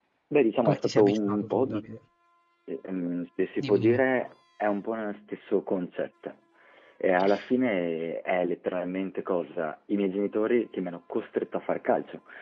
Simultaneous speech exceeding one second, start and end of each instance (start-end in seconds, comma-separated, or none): 0.6-1.8